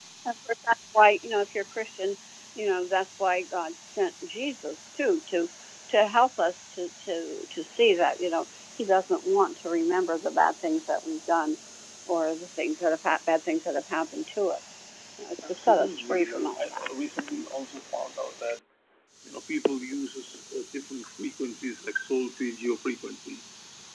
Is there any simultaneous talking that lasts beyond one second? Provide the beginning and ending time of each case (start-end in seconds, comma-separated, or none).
15.4-16.9